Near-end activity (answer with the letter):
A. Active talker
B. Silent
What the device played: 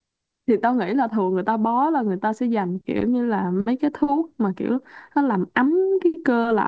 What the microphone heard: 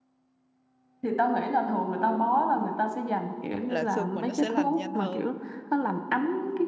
A